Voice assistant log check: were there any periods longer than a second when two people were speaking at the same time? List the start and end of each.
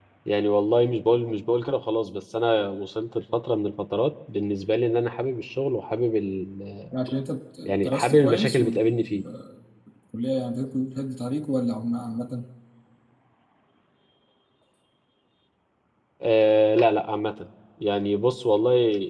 7.8-9.2

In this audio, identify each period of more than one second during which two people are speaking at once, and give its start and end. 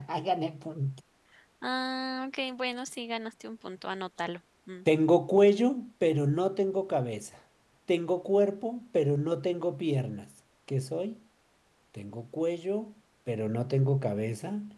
none

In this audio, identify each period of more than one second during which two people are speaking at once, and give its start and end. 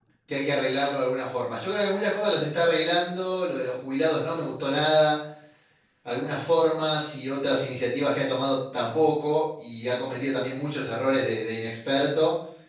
none

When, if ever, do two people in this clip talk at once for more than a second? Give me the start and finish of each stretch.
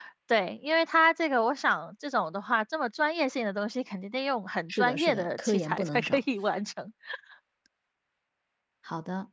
4.7-6.2

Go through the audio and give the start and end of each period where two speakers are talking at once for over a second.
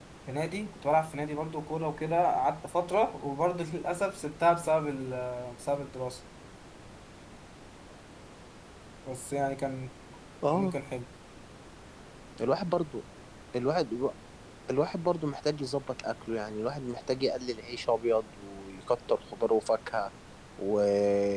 none

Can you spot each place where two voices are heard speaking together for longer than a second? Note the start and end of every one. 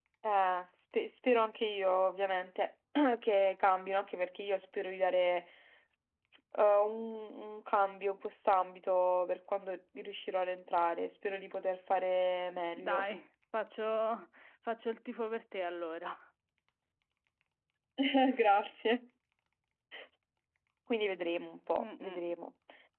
none

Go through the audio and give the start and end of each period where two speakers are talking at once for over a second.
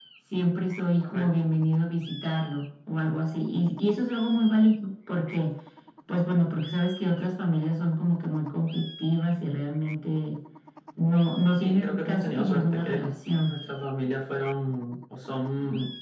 11.5-13.0

